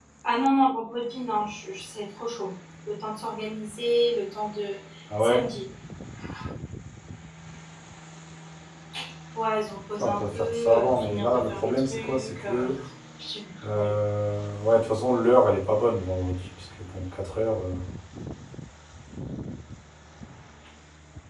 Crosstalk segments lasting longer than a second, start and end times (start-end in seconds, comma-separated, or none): 10.0-12.7